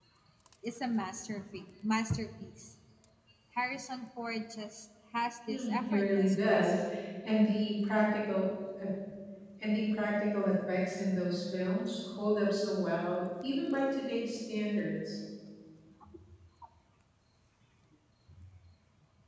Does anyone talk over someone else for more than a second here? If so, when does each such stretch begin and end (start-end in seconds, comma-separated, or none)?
5.5-6.8